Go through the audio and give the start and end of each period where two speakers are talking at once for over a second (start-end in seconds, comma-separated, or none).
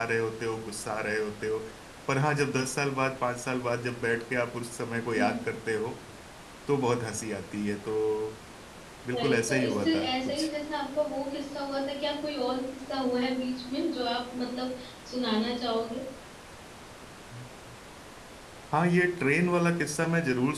9.1-10.5